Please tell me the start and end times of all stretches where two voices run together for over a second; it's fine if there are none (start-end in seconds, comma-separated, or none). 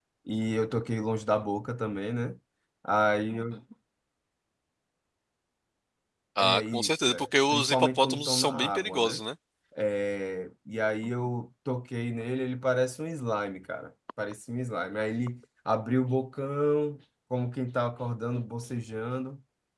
6.4-9.2